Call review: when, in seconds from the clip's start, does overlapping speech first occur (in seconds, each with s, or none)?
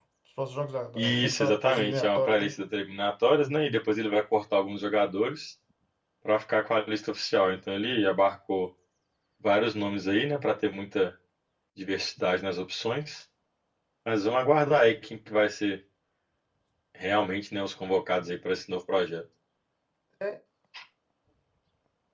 1.0 s